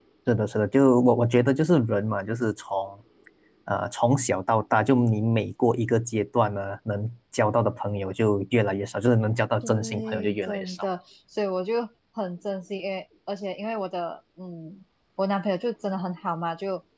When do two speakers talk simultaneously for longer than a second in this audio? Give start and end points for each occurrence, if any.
9.6-10.9

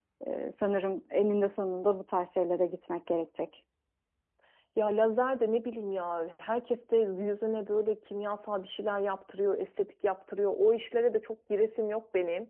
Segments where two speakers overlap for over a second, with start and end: none

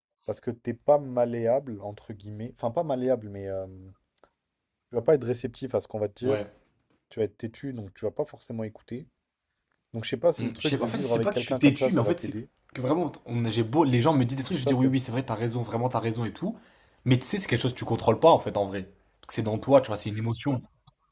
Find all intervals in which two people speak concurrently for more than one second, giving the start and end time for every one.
10.4-12.3

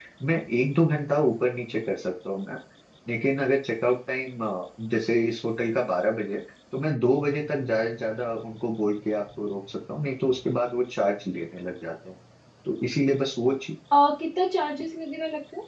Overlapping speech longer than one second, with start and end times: none

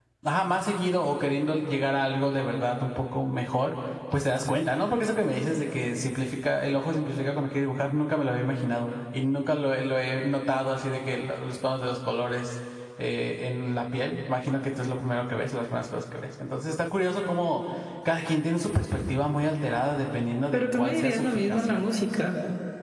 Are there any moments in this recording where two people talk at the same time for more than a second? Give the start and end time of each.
20.5-21.8

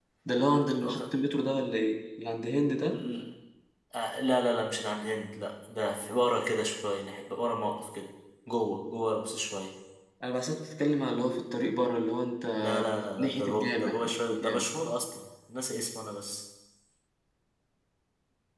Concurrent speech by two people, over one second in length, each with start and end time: 13.2-14.7

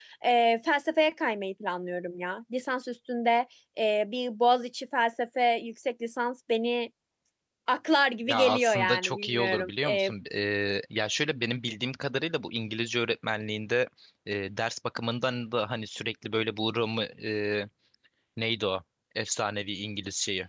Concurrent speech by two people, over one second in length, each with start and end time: 8.3-10.1

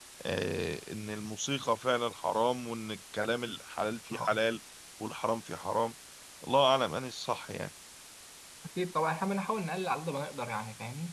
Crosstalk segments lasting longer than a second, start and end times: none

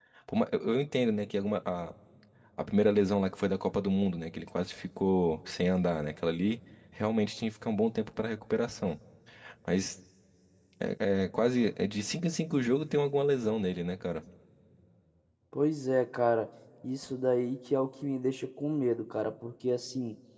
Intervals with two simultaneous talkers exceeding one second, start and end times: none

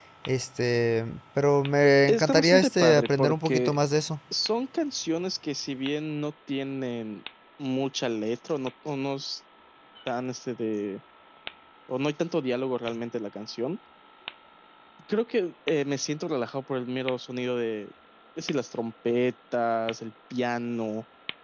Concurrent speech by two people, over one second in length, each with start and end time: 2.1-3.8

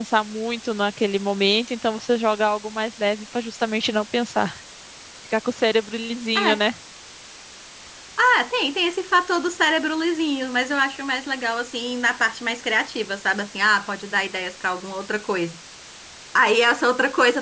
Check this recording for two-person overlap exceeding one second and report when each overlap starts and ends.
none

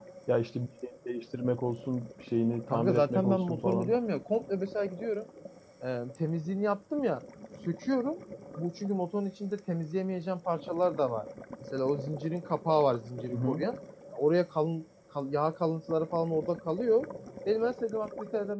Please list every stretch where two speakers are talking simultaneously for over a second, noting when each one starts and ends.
2.7-4.0

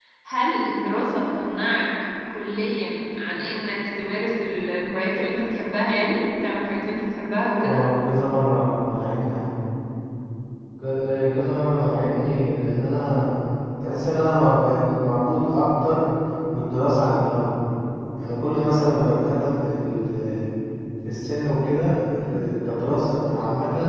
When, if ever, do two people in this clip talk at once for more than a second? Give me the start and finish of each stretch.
none

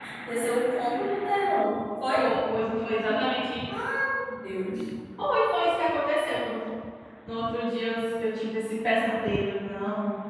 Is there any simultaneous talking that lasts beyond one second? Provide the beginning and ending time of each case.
none

